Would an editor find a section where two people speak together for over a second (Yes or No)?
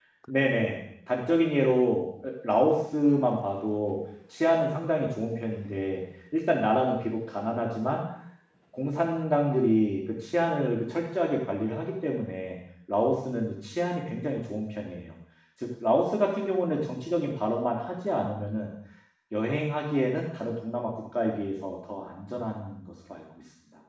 No